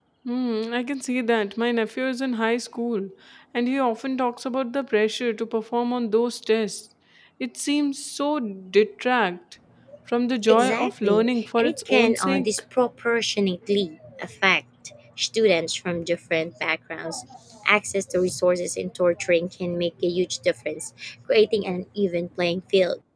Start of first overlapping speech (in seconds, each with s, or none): 10.5 s